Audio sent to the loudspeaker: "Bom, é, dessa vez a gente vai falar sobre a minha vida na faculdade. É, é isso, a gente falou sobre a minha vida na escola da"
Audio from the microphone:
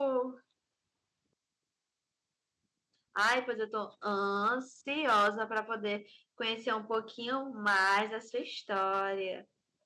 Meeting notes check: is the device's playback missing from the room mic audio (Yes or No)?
Yes